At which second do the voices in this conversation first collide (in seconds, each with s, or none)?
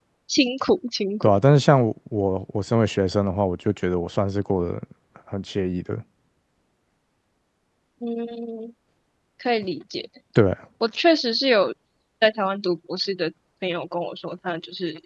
none